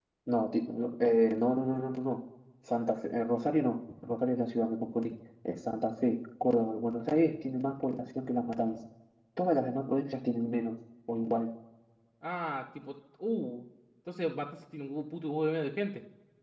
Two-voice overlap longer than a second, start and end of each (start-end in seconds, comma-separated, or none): none